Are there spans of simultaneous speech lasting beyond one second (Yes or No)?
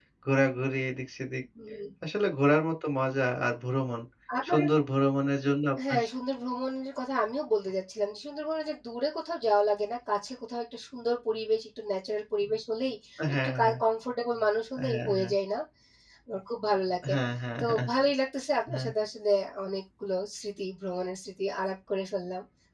No